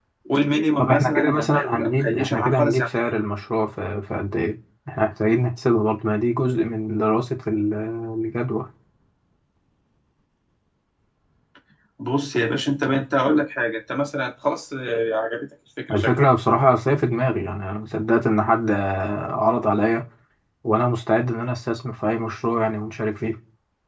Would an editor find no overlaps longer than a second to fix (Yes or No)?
No